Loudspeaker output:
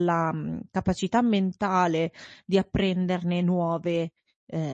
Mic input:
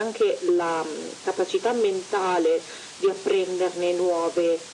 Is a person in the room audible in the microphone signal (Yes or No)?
No